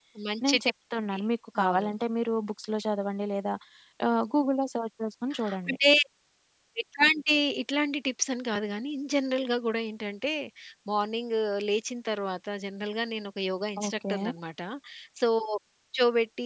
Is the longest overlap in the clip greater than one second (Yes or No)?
No